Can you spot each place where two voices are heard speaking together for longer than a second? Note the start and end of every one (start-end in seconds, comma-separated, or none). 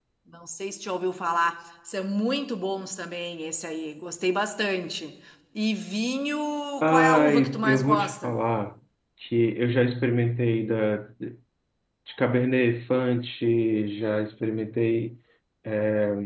6.8-8.4